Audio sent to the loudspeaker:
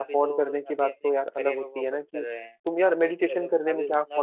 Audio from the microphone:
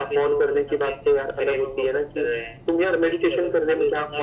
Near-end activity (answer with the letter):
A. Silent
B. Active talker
A